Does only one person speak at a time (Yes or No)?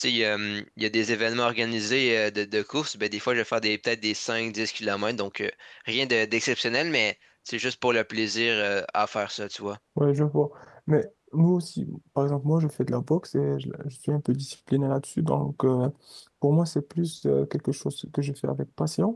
Yes